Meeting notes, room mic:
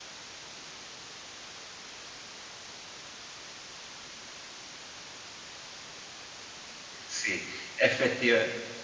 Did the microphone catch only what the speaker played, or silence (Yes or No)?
No